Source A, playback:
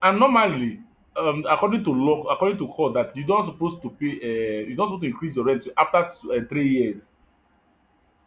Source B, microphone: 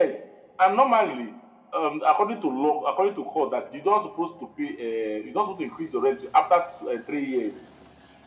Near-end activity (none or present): none